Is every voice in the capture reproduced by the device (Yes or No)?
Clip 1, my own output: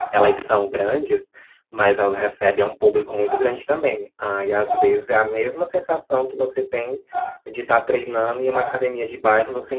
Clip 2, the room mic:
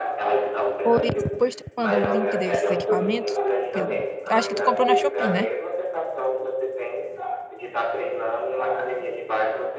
No